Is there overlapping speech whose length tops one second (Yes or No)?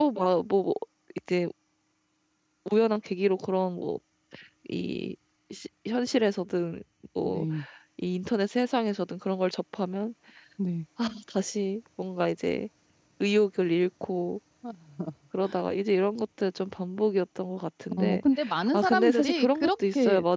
Yes